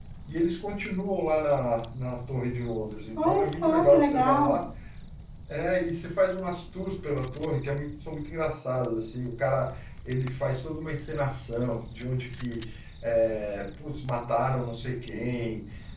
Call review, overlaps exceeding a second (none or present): present